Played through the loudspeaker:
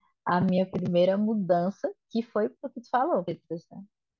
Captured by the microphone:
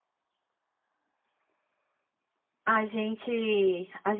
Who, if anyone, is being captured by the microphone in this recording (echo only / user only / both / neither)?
user only